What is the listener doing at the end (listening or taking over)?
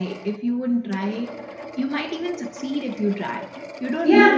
listening